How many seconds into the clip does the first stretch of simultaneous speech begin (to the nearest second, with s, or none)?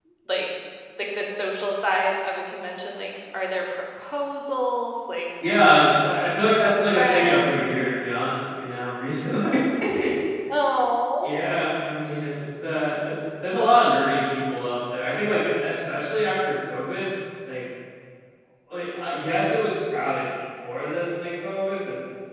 6 s